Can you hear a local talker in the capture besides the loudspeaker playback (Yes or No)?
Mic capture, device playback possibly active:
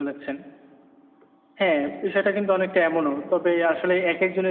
No